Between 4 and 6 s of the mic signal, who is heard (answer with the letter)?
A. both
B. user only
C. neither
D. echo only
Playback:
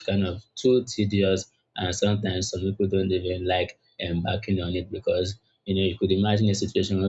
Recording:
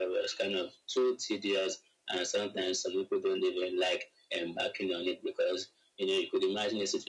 D